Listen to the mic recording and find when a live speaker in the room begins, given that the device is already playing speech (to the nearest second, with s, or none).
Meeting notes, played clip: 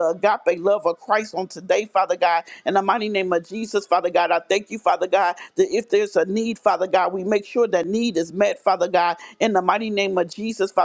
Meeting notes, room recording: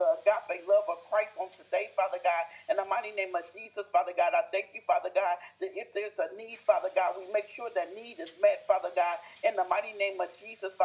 none